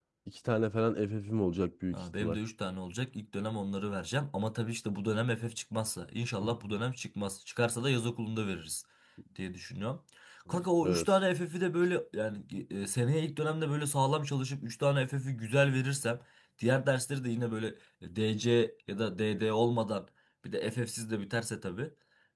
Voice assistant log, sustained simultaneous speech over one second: none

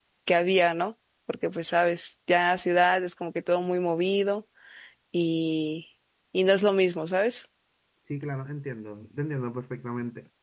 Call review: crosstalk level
none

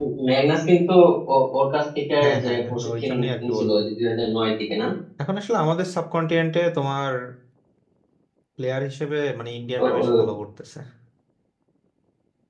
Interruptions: present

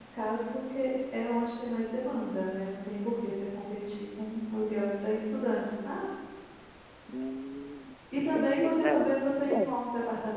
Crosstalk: present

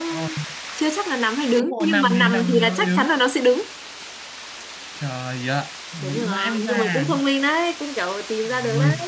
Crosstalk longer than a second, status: present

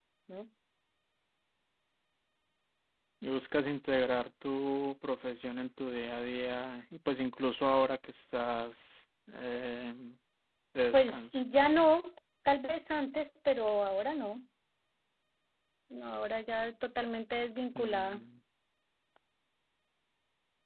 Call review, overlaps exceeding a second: none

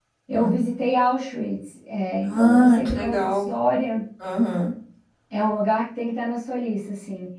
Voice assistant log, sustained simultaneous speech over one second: present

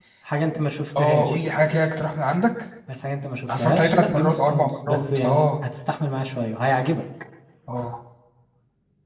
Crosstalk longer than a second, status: present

